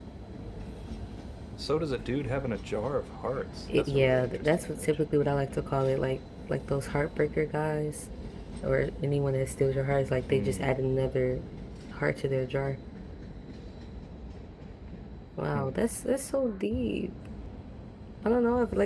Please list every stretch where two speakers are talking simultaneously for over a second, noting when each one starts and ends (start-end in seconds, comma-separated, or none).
3.7-5.0